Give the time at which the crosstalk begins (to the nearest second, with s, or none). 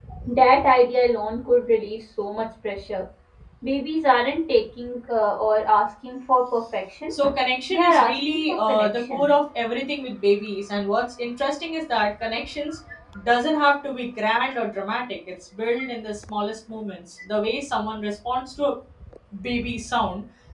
8 s